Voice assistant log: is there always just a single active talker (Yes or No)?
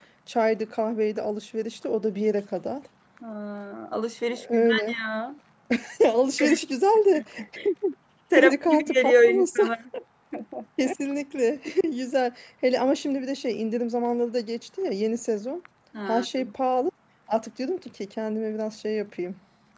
No